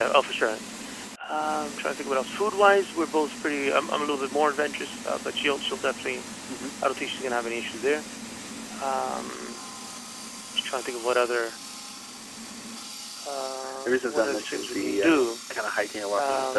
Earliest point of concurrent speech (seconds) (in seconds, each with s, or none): 13.8 s